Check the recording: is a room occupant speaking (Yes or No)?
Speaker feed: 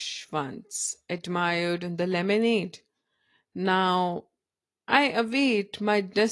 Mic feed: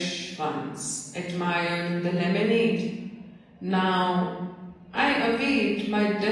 No